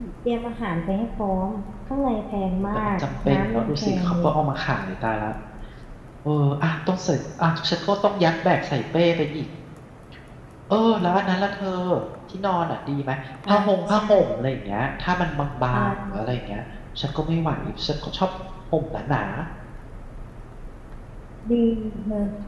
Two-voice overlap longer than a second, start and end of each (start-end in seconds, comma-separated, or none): 2.6-4.3